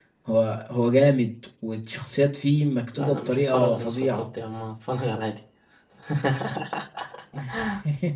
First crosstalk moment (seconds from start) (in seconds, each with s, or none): 2.9 s